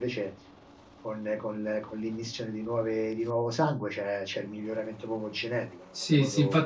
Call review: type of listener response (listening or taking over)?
taking over